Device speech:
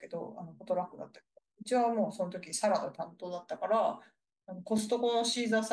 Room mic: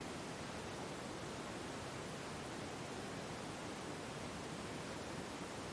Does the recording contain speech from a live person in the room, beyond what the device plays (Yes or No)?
No